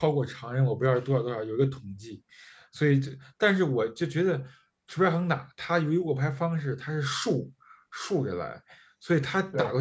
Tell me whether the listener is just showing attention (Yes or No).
Yes